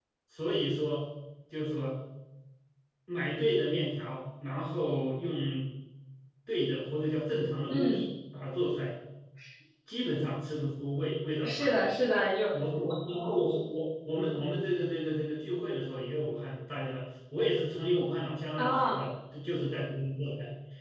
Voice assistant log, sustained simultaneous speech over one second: none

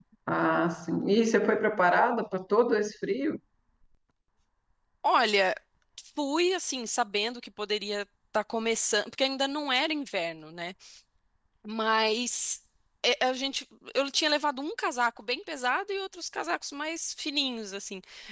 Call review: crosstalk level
none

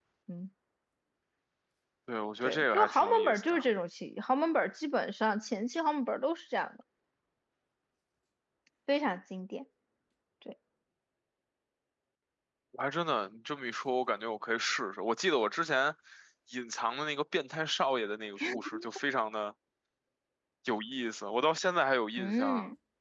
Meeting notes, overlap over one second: present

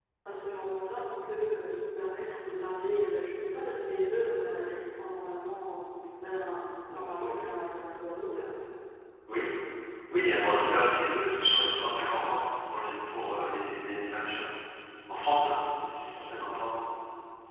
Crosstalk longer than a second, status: none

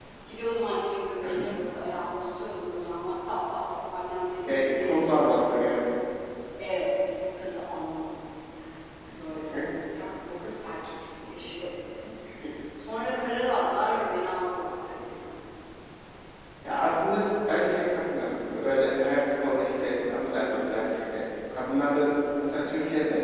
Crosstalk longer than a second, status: present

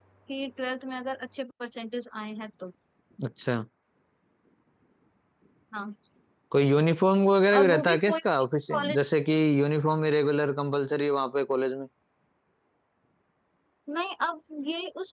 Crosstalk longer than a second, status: present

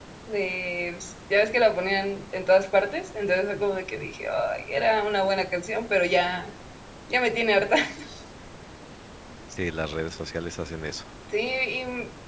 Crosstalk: none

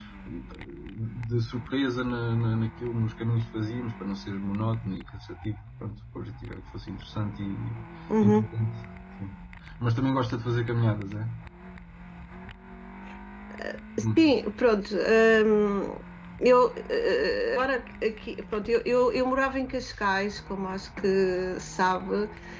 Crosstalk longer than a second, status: none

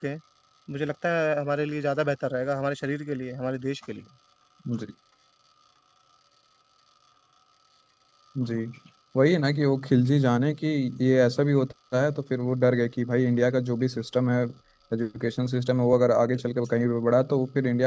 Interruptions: none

